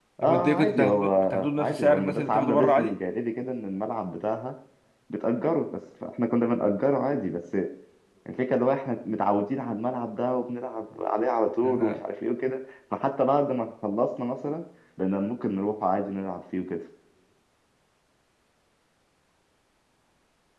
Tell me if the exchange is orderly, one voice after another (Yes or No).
No